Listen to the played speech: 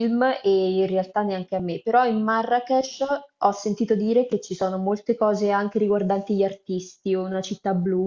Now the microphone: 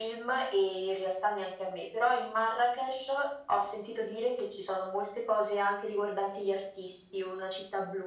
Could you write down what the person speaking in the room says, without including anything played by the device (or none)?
none